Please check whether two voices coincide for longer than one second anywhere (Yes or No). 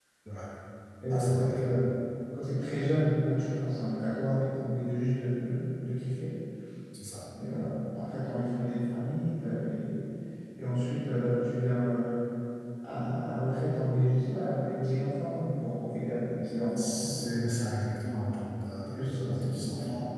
Yes